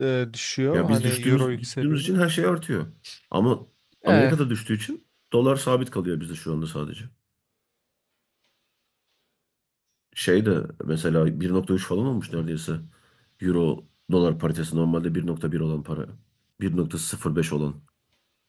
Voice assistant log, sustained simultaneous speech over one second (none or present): present